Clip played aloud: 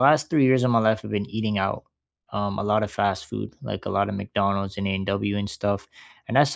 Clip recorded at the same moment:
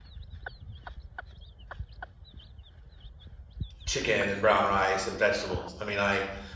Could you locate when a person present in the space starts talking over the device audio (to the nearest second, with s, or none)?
4 s